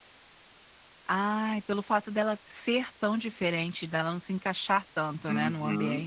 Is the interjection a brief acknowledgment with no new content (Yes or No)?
No